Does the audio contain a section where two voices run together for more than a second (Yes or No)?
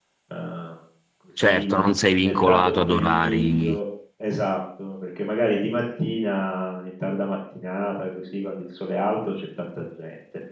Yes